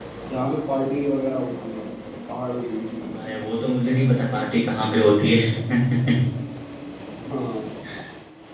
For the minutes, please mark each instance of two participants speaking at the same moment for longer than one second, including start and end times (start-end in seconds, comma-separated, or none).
none